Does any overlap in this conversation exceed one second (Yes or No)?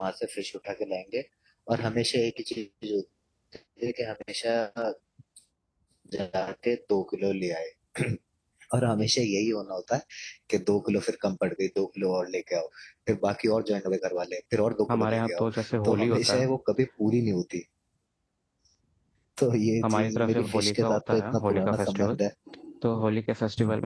Yes